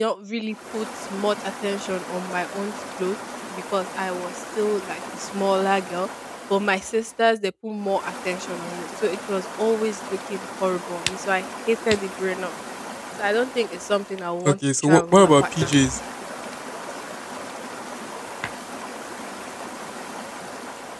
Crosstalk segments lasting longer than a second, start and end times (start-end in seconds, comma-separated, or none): 14.4-15.7